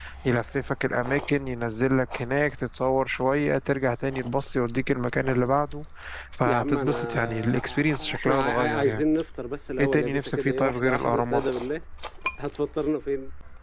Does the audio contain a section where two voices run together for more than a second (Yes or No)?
Yes